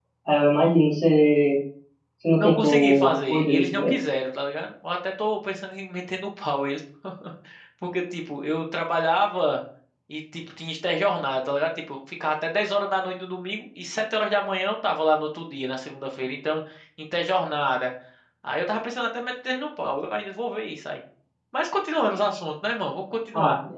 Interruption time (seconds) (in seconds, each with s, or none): 2.3 s